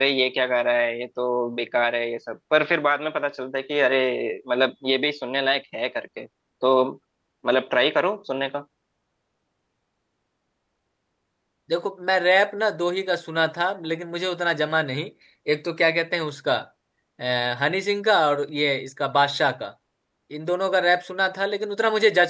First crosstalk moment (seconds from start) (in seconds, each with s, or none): none